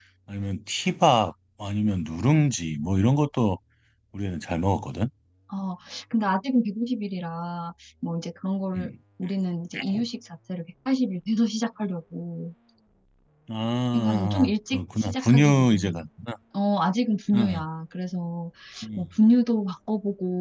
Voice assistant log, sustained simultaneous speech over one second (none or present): present